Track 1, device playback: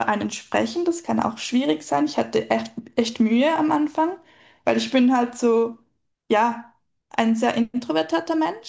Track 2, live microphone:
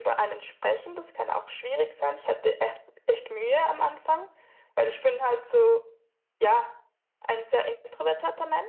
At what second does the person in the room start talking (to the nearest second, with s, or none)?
none